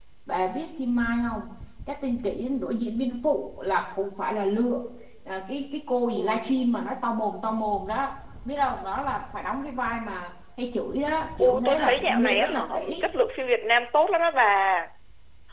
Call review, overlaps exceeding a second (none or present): present